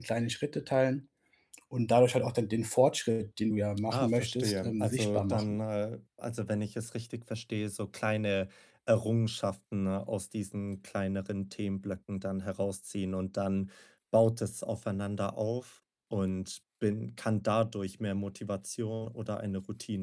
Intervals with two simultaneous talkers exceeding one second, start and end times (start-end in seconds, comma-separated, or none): 3.9-5.6